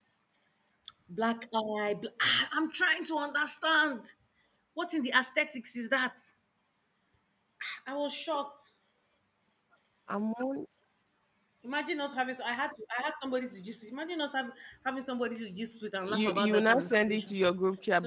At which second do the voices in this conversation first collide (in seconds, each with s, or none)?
16.0 s